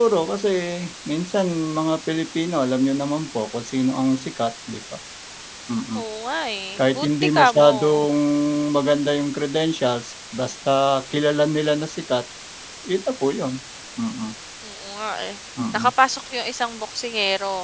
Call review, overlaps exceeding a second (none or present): present